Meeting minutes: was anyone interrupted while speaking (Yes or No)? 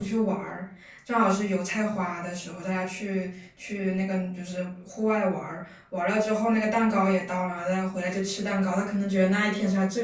No